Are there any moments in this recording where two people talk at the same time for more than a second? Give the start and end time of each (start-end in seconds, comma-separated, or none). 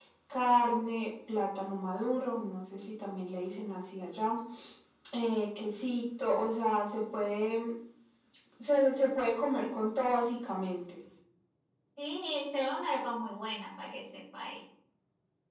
none